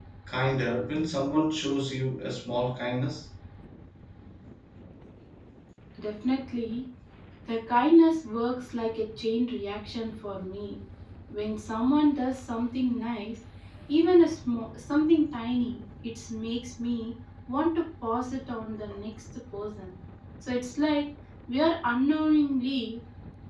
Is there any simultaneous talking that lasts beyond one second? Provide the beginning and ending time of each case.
none

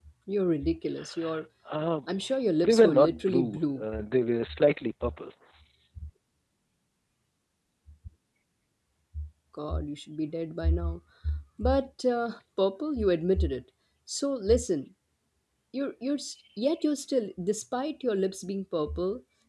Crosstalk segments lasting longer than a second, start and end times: 2.6-3.8

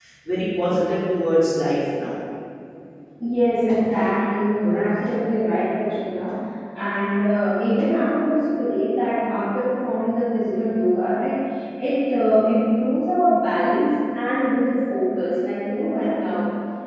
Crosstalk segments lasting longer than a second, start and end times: none

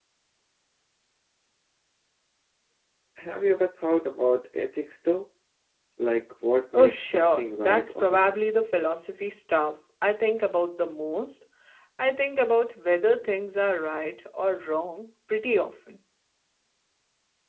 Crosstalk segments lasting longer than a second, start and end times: 6.7-8.4

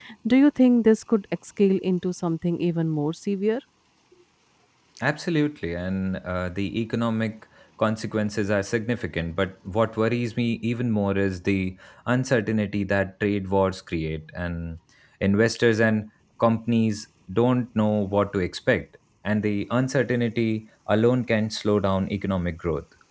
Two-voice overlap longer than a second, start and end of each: none

